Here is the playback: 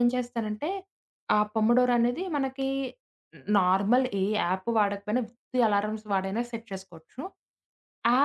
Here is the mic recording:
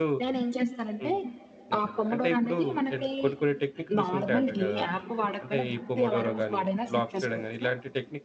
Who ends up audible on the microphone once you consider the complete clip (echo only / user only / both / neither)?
both